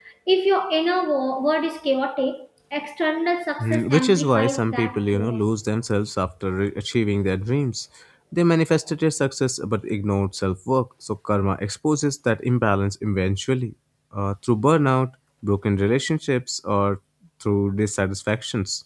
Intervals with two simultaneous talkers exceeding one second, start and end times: 3.6-5.4

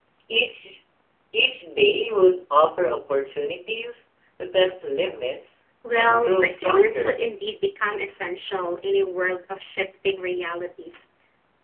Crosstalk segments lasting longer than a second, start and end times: 6.0-7.2

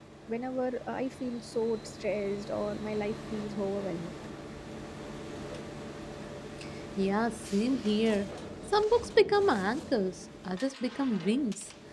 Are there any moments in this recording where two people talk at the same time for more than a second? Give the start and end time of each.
none

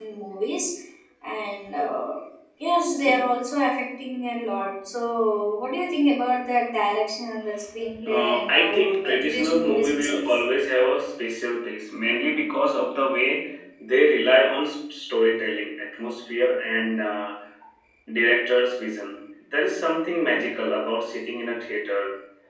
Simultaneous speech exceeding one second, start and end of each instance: 8.1-10.2

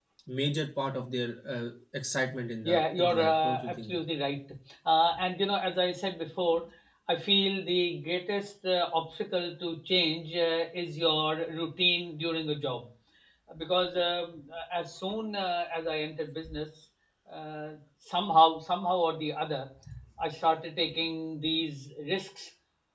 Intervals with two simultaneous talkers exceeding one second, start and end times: 2.6-4.0

